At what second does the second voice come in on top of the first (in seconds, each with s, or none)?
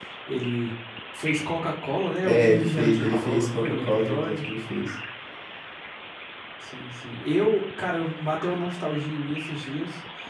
2.2 s